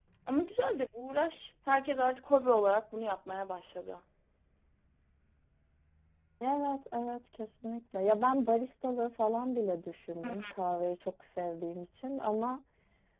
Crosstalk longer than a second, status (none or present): none